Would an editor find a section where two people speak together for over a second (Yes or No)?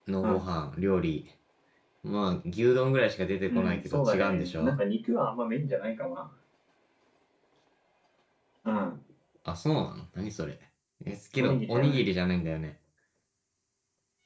Yes